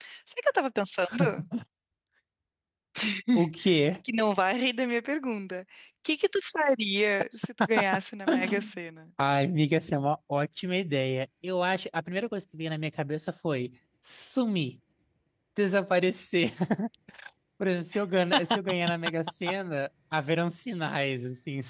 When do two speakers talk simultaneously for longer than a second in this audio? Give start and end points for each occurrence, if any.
none

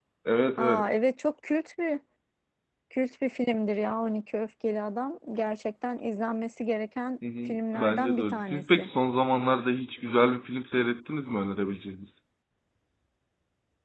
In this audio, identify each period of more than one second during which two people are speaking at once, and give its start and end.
7.4-8.9

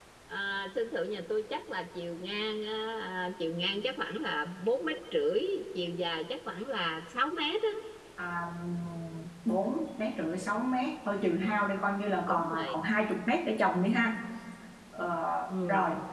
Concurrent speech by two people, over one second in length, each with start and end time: none

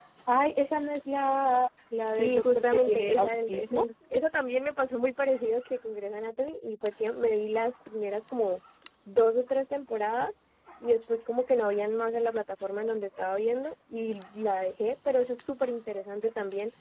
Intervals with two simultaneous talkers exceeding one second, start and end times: 2.2-3.8

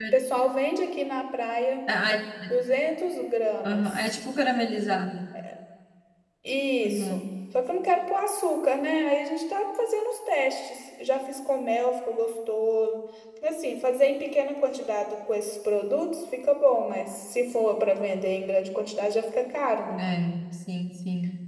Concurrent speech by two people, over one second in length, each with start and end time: none

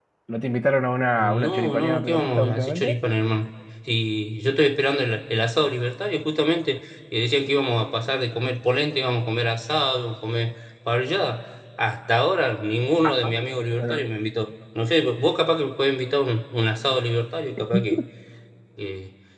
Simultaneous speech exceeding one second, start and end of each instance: 1.2-2.9

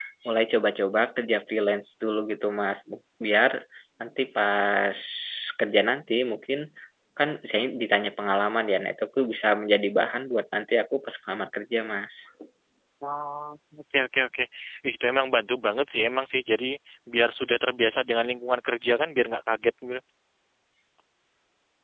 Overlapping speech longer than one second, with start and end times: none

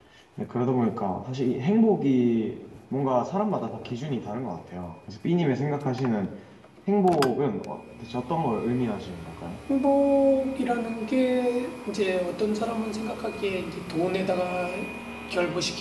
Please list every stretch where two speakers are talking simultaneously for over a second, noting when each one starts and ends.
none

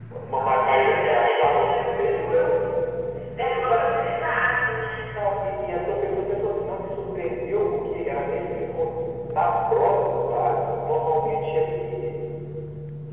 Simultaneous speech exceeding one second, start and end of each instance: 0.6-2.5

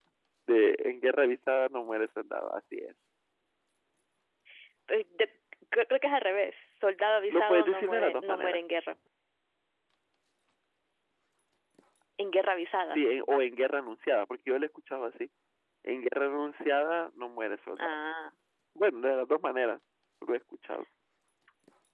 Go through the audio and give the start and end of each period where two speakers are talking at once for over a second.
7.3-8.6

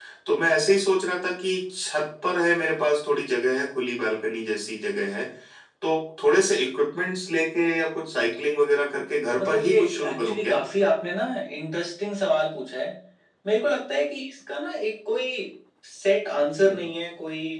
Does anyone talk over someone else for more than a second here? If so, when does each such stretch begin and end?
9.4-10.6

